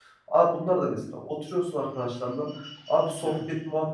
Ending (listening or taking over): listening